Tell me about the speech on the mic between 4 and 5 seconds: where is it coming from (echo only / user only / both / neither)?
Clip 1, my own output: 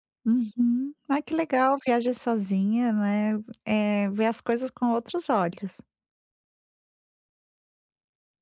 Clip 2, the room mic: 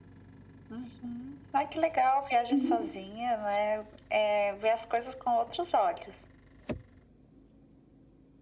echo only